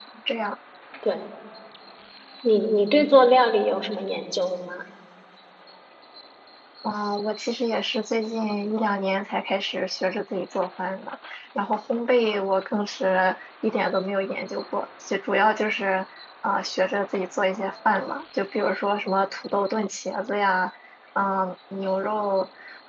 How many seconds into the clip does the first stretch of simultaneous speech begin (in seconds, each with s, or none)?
none